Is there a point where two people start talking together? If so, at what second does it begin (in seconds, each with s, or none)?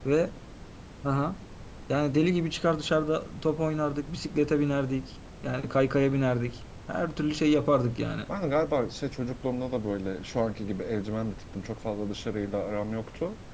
none